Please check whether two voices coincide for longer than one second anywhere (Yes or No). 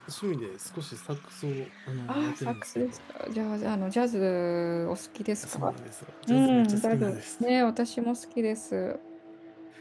Yes